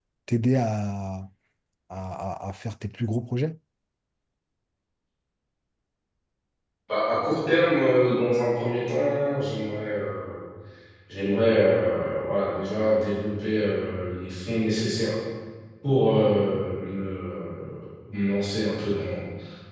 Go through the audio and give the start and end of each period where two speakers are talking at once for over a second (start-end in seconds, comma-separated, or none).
none